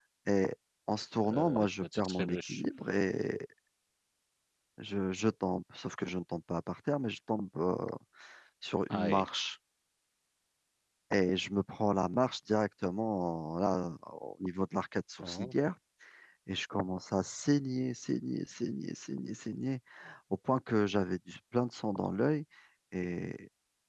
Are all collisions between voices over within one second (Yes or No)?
No